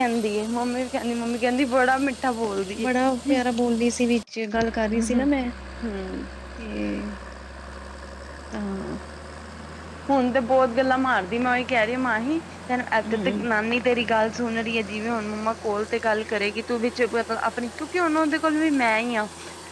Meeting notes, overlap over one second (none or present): none